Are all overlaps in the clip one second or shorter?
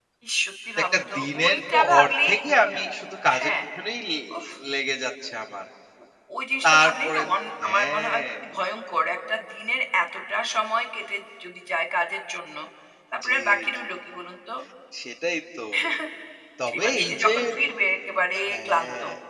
No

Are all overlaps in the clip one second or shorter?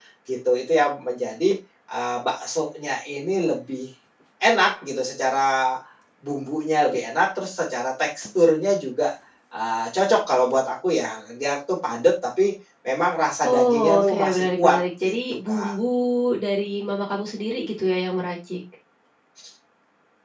No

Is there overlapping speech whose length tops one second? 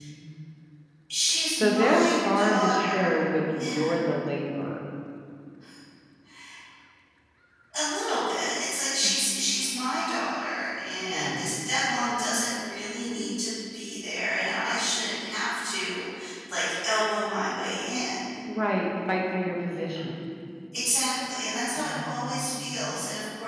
Yes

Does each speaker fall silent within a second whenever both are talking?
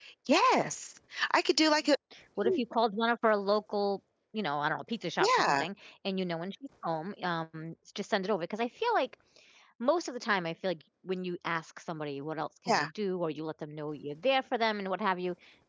Yes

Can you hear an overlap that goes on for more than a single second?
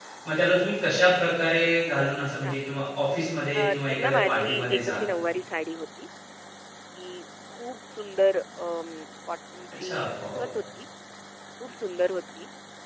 Yes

